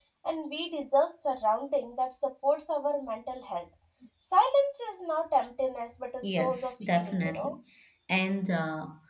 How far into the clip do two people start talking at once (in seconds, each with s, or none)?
6.2 s